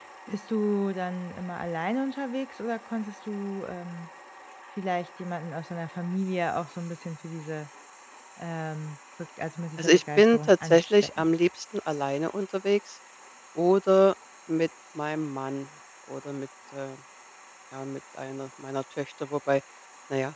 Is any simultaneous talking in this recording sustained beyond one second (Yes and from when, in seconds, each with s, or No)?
Yes, from 9.8 s